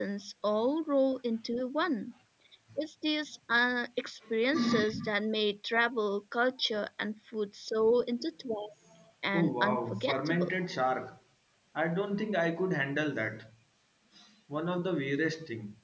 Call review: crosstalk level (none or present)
present